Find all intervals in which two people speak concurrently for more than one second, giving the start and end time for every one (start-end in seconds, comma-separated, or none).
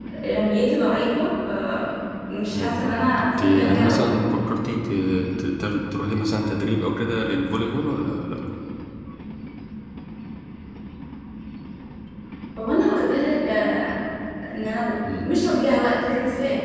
2.5-4.1